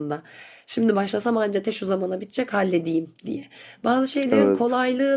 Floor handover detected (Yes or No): No